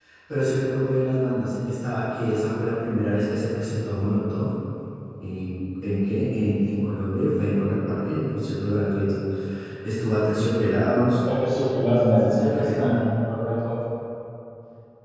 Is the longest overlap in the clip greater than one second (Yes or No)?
Yes